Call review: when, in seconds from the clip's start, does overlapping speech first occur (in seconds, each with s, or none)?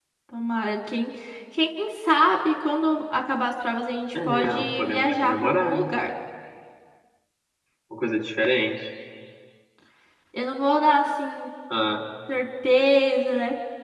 4.1 s